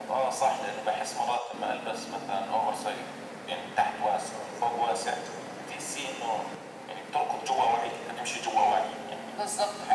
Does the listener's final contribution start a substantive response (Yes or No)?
Yes